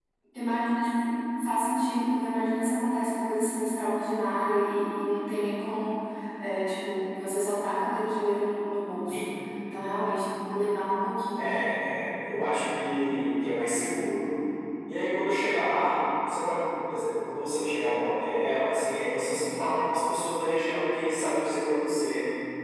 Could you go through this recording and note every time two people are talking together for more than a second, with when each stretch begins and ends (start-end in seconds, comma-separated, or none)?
none